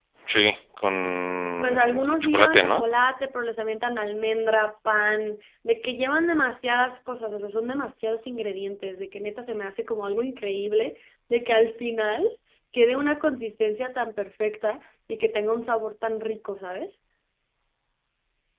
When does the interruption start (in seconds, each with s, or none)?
1.6 s